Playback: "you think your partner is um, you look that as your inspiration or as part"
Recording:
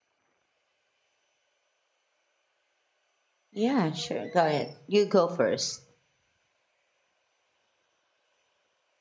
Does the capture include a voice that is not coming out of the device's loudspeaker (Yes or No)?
Yes